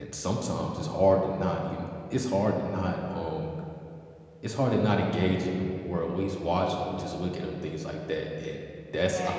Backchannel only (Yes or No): Yes